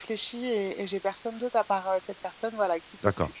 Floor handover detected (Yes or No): Yes